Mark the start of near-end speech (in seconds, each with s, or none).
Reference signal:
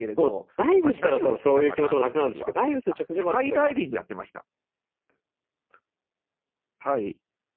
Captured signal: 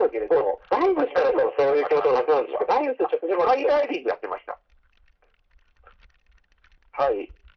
none